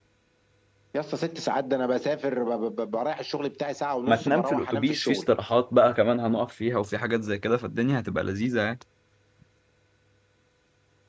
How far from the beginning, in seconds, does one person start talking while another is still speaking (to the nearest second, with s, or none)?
4 s